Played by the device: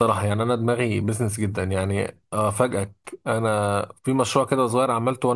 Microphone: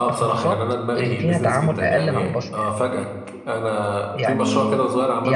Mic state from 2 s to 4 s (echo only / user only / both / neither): both